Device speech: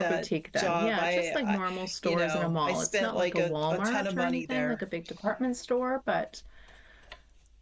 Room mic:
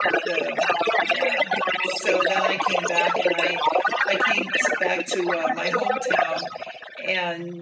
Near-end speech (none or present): present